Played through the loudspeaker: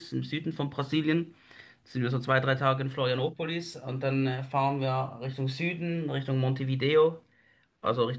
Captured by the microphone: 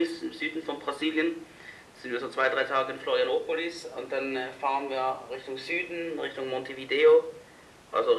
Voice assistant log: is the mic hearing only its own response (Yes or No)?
Yes